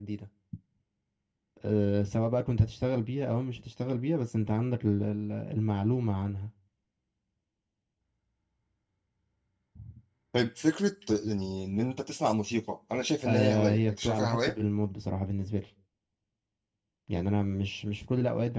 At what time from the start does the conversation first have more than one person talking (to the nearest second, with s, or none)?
13 s